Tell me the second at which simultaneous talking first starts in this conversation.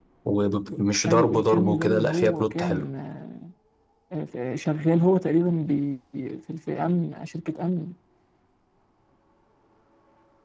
1 s

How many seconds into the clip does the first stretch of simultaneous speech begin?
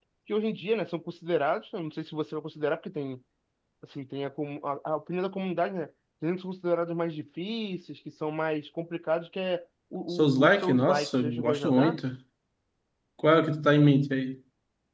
10 s

